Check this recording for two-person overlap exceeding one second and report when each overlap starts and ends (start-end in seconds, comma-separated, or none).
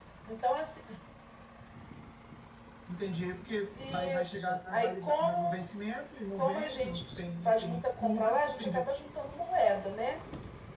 3.9-5.6, 6.4-8.8